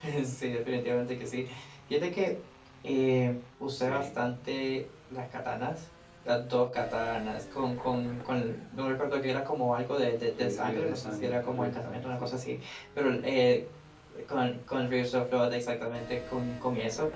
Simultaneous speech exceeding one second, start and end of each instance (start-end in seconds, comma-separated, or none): 10.3-12.3